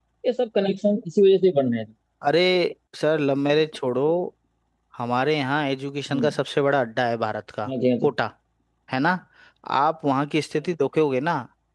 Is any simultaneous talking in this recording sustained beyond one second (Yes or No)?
No